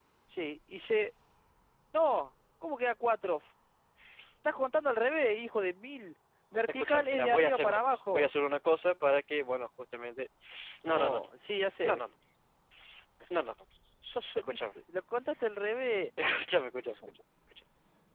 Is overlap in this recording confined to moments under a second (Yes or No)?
No